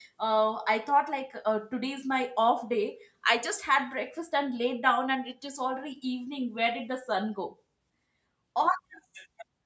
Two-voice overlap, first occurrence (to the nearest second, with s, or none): none